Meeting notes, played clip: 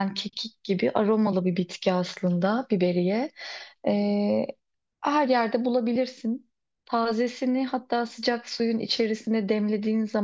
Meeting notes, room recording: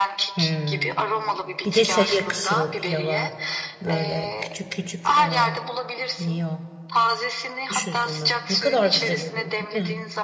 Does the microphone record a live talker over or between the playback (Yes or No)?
Yes